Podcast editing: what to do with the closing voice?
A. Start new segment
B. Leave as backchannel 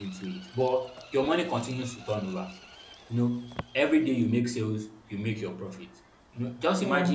B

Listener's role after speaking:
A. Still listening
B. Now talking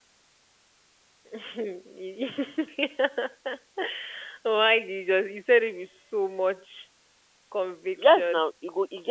B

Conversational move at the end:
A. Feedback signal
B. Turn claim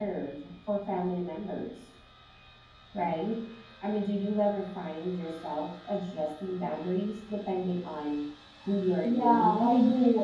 B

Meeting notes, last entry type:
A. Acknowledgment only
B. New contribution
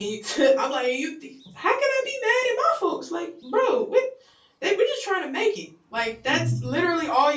A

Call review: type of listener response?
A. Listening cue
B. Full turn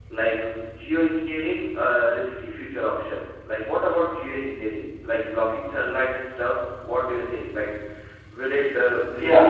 B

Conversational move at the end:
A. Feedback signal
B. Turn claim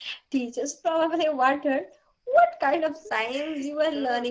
B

